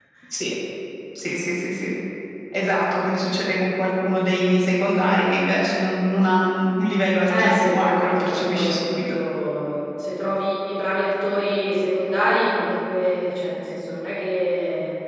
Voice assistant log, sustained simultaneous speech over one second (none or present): present